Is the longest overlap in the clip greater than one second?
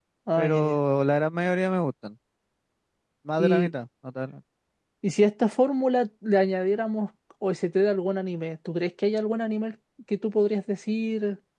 No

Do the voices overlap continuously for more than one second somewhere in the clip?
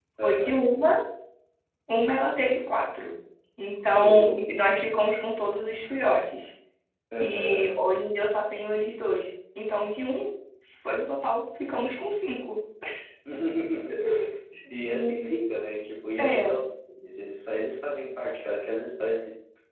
No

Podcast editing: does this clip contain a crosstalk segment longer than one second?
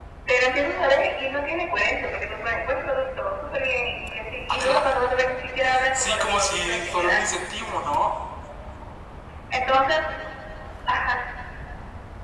Yes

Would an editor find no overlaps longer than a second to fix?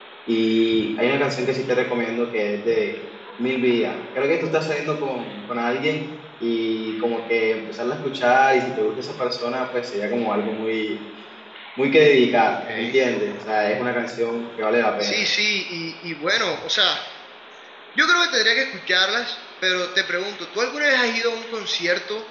Yes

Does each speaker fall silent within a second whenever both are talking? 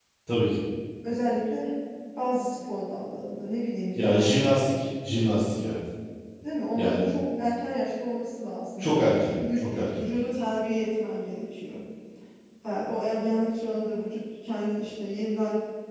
No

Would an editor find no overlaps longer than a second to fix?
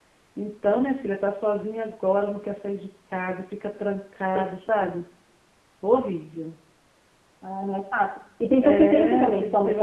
No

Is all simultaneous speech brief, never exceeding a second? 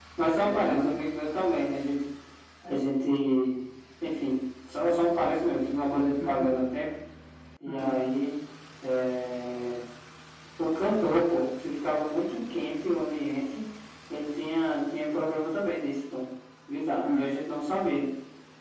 Yes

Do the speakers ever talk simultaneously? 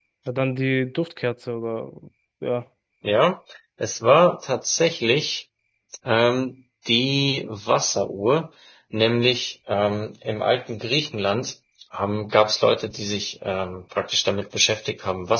No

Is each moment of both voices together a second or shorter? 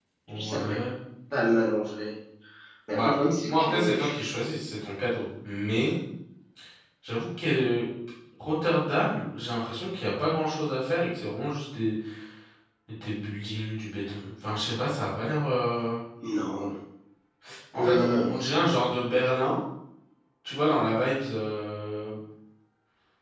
No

